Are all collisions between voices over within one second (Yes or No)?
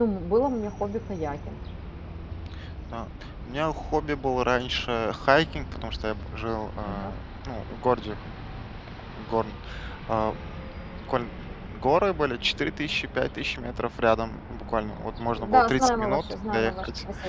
No